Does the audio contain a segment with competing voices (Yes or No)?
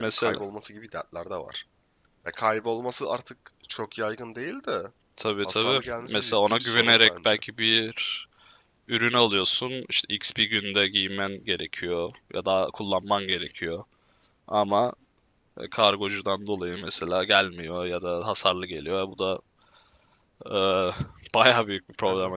Yes